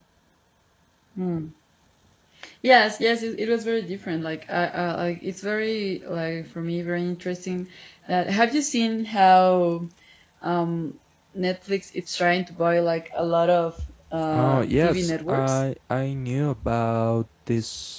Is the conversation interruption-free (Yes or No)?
No